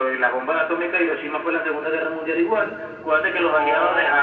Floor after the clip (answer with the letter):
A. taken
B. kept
B